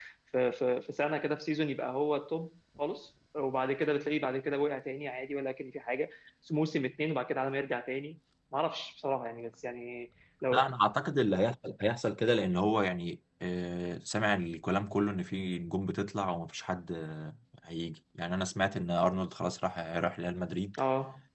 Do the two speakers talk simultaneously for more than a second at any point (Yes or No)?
No